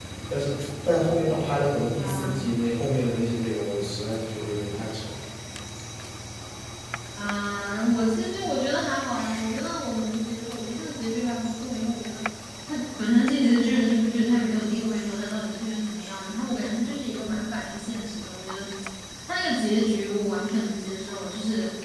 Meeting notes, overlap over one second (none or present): none